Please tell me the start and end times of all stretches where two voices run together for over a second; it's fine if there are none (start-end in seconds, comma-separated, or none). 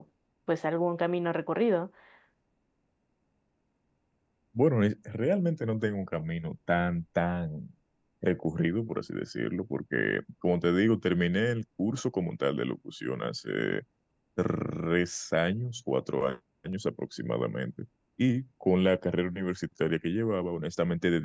none